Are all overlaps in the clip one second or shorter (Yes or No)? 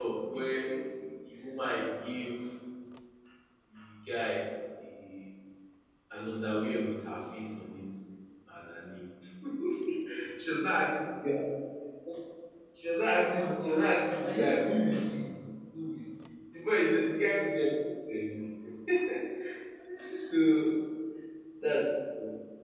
No